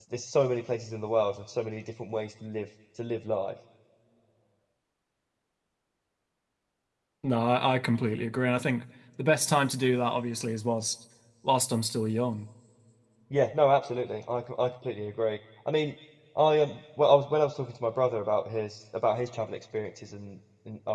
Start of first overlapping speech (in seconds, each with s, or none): none